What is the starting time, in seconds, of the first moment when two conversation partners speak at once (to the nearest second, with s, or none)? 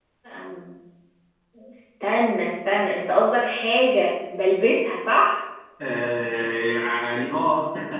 none